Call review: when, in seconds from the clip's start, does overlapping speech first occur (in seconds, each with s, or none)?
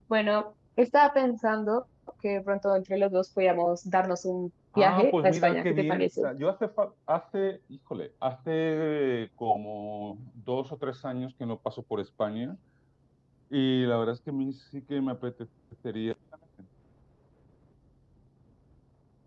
4.7 s